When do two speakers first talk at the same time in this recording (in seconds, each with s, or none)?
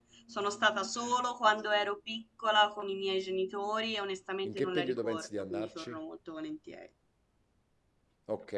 4.4 s